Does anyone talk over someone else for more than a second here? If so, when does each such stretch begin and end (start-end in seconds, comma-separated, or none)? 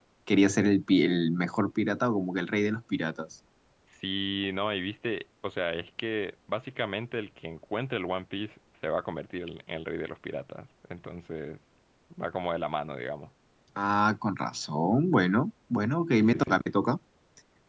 none